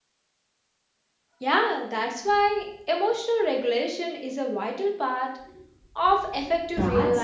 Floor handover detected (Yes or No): Yes